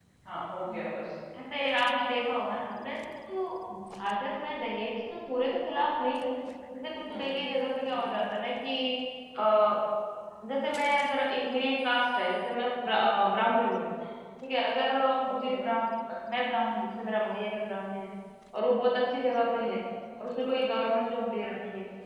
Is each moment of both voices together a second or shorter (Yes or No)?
Yes